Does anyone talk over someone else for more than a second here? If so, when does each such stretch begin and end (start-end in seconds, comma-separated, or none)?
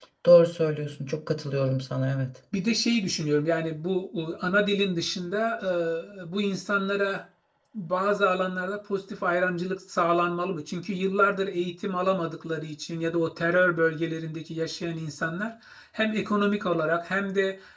none